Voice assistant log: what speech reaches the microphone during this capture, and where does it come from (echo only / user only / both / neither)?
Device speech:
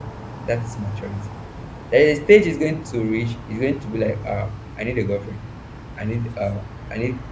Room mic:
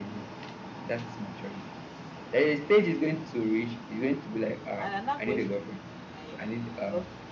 both